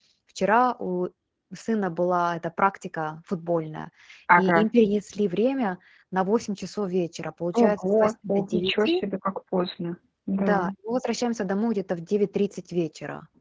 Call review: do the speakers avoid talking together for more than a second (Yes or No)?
No